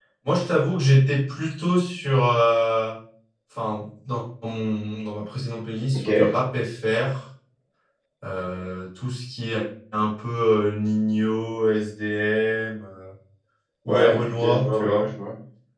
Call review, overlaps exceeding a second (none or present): present